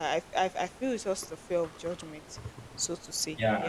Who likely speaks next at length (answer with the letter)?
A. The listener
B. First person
A